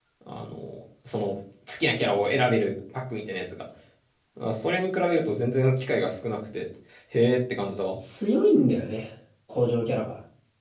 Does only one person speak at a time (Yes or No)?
Yes